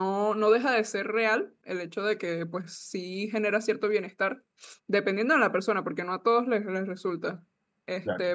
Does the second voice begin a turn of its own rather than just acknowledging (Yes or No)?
No